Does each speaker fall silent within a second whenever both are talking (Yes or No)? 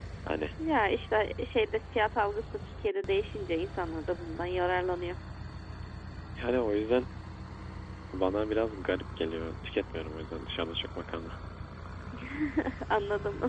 Yes